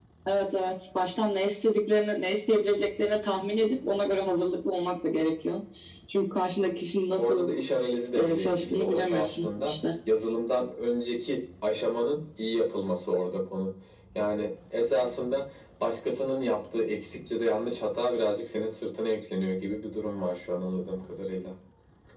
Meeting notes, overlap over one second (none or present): present